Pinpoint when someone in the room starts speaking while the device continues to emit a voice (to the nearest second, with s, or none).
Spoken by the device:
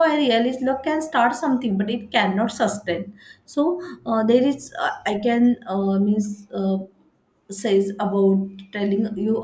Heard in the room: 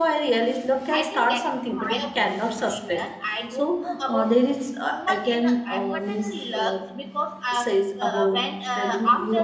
1 s